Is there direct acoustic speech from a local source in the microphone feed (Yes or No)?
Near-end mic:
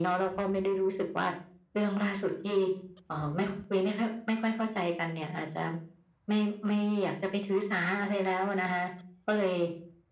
No